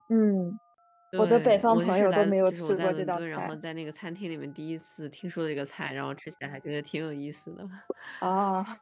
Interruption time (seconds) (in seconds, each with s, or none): 1.2 s